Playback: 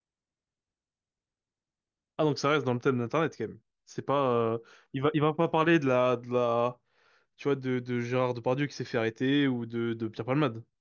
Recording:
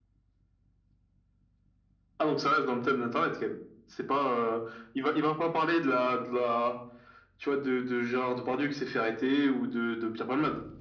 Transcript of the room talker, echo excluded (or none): none